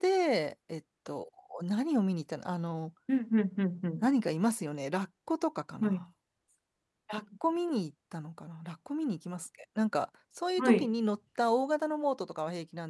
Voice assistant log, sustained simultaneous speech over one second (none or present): none